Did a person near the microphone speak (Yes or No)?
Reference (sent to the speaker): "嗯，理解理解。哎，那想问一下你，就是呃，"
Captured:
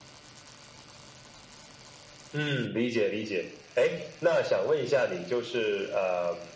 No